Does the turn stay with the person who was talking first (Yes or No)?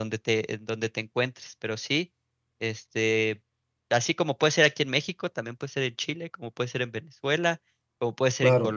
Yes